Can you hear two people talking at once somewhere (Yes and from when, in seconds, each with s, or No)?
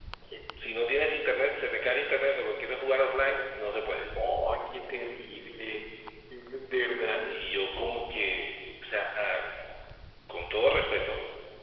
No